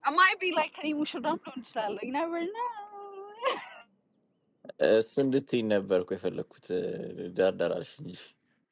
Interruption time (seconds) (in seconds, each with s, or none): none